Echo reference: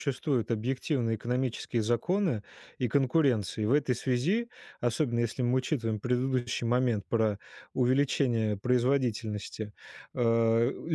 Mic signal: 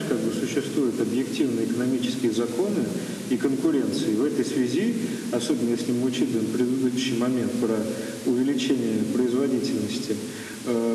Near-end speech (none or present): none